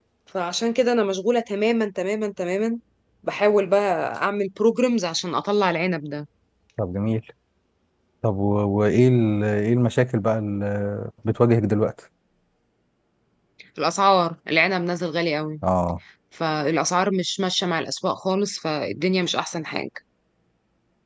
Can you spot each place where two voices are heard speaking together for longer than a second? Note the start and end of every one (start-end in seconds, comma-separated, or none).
none